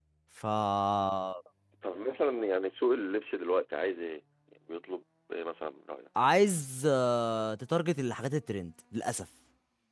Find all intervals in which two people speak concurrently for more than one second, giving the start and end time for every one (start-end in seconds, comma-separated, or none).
none